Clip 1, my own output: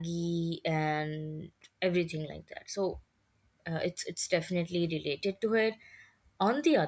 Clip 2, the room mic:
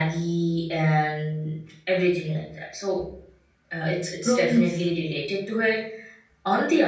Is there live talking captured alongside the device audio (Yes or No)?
Yes